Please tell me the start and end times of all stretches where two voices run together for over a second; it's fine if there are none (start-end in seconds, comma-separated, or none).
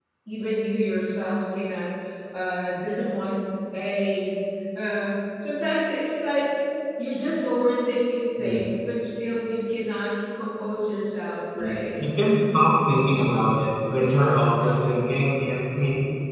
11.5-12.8